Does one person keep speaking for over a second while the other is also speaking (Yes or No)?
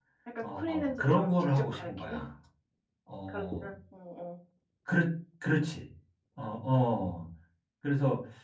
Yes